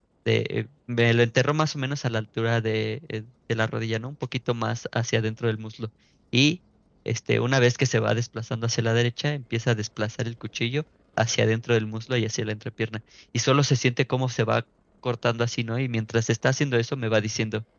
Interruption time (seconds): none

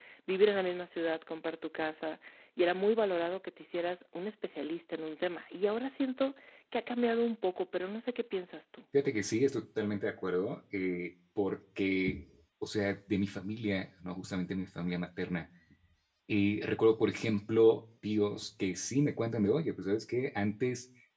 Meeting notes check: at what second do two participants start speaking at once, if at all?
none

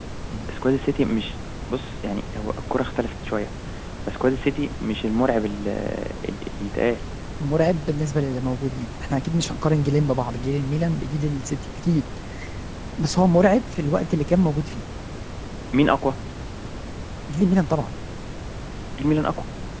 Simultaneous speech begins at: none

